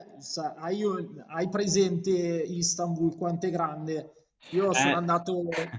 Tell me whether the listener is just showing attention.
Yes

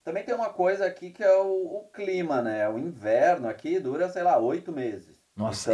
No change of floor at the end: No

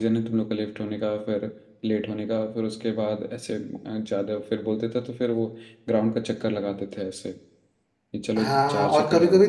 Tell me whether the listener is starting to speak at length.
Yes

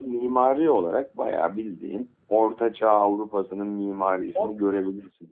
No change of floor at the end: Yes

